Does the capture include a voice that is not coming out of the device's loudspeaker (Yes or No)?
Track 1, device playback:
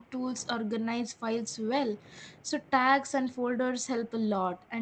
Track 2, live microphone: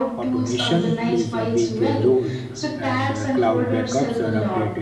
Yes